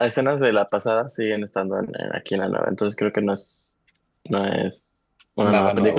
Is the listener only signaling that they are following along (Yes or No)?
Yes